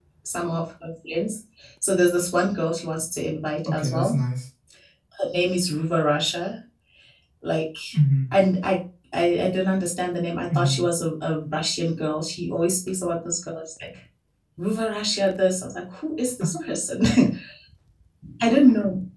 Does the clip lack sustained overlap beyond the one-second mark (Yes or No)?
Yes